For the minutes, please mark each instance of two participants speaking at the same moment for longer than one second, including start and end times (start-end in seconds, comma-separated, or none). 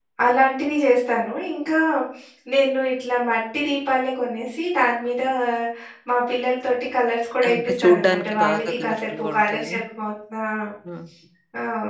7.5-9.8